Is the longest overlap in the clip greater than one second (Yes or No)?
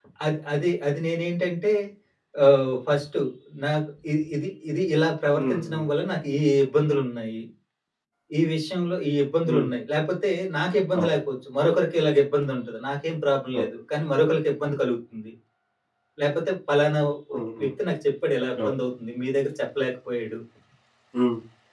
No